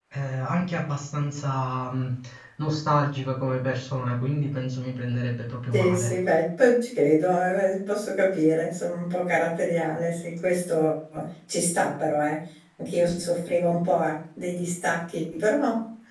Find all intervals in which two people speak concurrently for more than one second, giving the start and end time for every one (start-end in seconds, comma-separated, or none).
none